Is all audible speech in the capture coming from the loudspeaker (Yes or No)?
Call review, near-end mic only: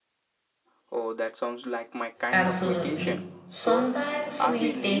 No